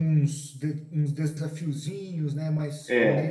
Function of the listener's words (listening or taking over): taking over